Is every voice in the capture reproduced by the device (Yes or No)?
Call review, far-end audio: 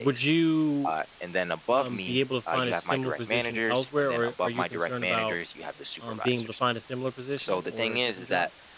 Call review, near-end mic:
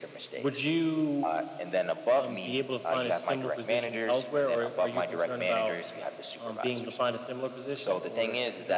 Yes